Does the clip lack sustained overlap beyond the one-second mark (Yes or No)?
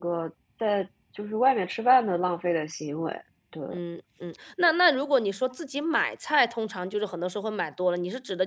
Yes